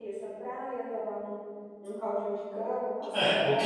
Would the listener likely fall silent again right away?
No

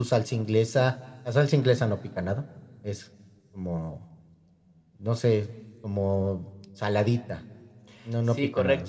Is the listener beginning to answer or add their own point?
Yes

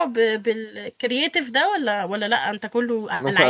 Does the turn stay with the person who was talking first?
No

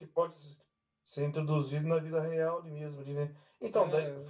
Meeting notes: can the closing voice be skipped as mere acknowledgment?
Yes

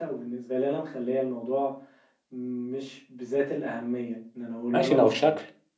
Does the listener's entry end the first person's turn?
Yes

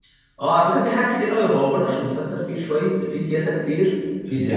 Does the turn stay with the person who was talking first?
Yes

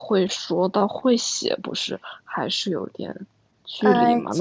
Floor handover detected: Yes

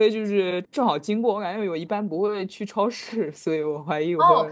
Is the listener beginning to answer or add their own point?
Yes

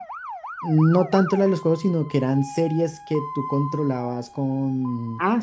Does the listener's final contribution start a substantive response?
Yes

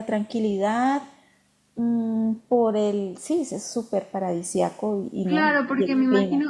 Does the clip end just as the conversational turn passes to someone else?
Yes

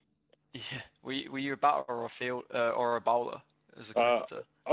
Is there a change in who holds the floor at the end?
Yes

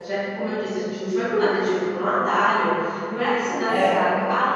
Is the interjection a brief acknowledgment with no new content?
Yes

